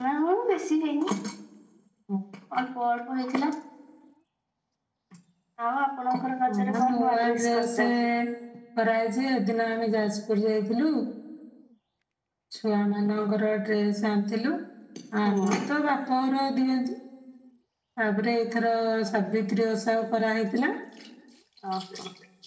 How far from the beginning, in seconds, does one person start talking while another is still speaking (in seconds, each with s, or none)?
6.6 s